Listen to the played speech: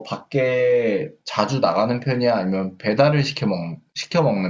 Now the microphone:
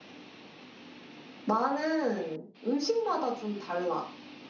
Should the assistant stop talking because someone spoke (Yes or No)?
Yes